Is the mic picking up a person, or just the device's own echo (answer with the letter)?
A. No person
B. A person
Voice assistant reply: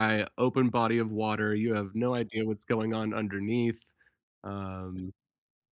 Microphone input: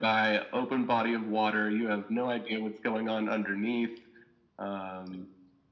A